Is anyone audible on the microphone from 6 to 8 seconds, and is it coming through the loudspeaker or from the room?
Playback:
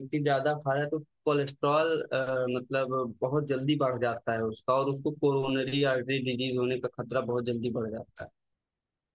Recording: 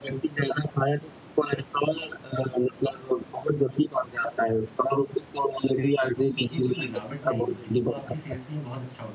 both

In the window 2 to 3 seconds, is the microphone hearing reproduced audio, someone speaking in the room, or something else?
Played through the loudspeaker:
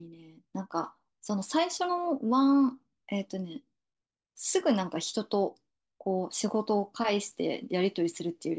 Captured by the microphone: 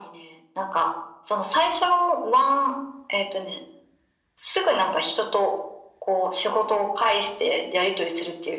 echo only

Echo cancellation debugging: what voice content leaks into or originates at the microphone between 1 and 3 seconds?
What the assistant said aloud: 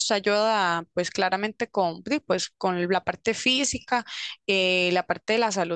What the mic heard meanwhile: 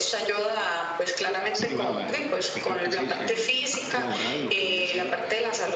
both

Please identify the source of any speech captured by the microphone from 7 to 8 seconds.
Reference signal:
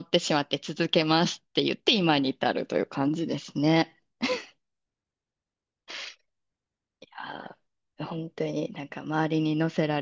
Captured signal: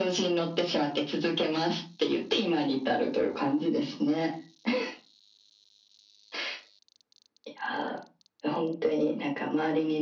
echo only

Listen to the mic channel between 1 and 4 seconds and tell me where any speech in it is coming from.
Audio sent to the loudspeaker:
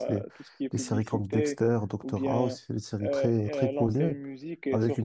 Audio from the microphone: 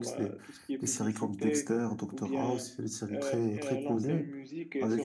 echo only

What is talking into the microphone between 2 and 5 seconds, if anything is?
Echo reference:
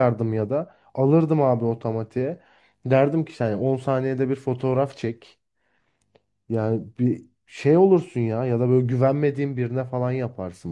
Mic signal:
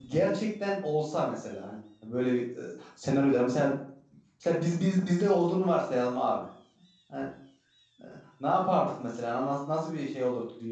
user only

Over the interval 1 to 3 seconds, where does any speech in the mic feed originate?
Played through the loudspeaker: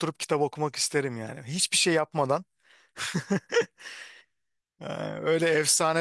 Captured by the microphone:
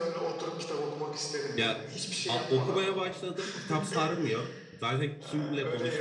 both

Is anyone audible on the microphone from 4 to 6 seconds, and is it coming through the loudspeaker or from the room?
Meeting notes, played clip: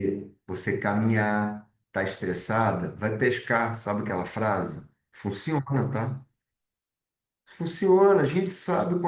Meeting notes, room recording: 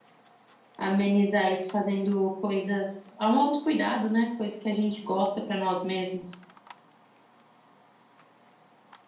user only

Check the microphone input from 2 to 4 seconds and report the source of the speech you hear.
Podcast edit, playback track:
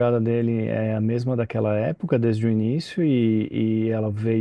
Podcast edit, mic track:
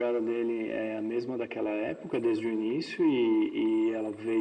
echo only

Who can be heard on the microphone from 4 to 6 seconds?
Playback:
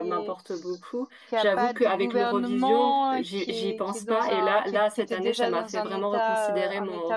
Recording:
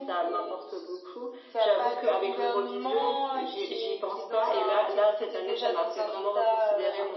echo only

